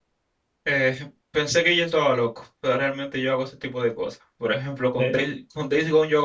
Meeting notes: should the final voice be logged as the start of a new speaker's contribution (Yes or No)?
No